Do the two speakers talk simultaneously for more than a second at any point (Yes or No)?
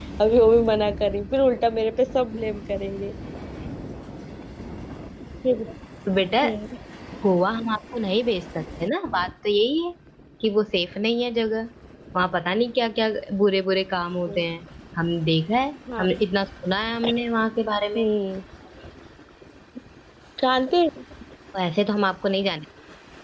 No